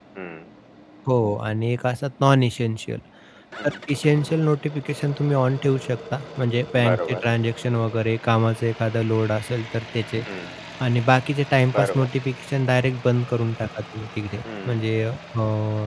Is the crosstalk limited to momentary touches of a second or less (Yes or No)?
Yes